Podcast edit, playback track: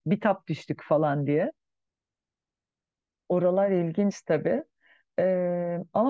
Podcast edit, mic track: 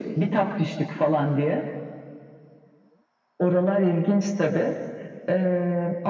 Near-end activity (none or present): none